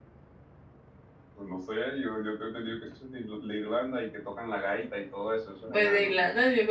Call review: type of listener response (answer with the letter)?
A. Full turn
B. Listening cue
A